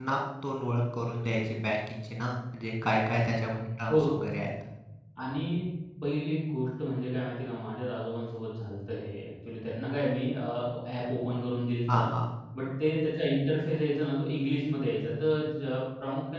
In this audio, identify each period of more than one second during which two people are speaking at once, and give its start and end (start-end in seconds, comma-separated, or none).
none